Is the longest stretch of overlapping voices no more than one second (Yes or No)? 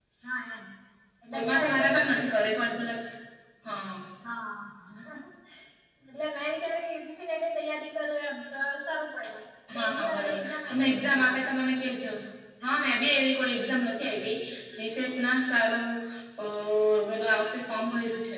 No